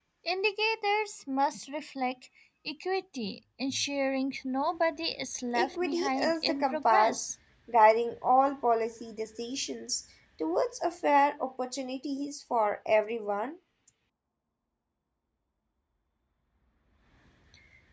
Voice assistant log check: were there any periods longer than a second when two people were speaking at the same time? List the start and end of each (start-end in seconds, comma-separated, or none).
5.6-7.3